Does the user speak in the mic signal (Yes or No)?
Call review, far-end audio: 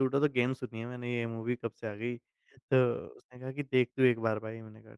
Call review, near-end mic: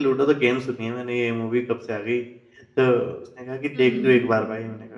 Yes